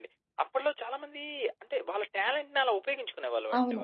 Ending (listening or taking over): taking over